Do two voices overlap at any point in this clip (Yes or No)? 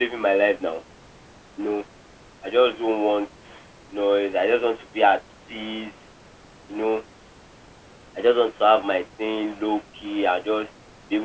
No